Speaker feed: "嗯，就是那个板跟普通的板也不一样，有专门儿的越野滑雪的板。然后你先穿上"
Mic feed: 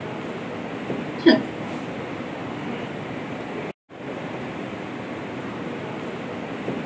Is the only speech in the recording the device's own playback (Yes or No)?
No